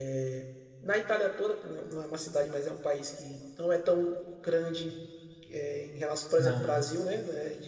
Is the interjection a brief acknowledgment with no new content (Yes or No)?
Yes